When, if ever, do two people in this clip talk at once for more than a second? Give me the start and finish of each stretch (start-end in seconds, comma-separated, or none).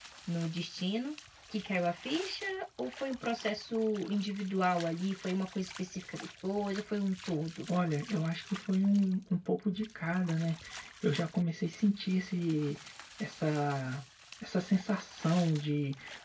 none